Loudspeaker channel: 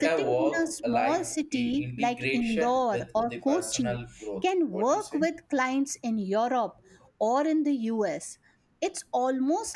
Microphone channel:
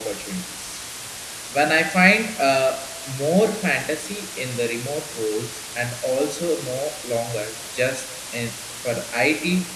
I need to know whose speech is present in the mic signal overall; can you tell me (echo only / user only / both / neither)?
user only